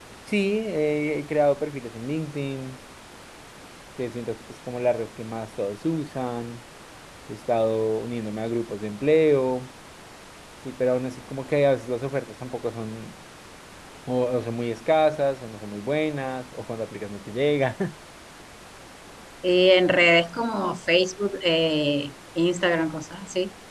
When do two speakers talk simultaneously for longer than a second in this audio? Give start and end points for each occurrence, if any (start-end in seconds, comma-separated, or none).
none